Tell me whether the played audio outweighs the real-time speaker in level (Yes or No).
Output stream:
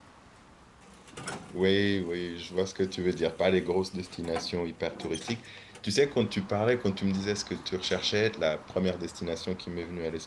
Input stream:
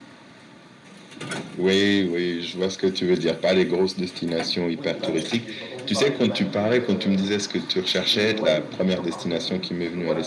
Yes